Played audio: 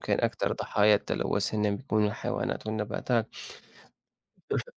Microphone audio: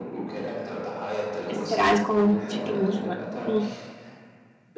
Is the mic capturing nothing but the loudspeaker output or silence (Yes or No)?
No